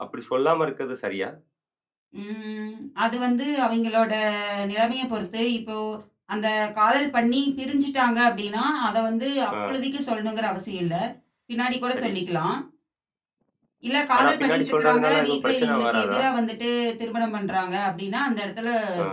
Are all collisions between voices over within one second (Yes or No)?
No